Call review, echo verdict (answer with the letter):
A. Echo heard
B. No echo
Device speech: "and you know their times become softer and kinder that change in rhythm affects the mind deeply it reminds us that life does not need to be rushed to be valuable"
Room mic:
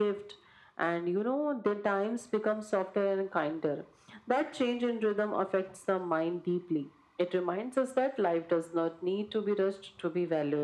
A